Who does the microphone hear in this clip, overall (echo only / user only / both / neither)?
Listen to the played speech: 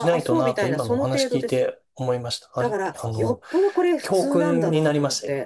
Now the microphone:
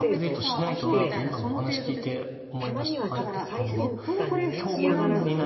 both